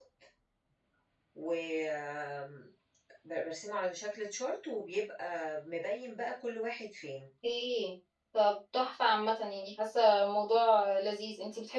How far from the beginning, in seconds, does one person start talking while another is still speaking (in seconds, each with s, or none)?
none